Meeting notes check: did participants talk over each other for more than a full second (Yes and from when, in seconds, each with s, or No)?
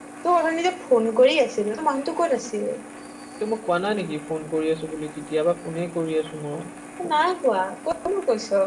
No